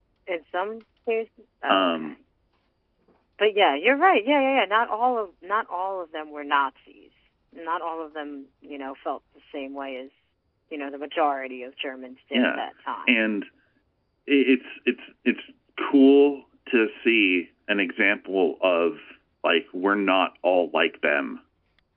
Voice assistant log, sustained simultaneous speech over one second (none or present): none